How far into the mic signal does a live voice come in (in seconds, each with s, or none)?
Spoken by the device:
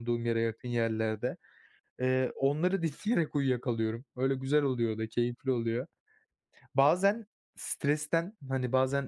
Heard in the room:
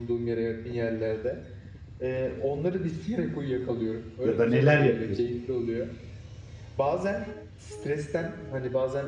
4.2 s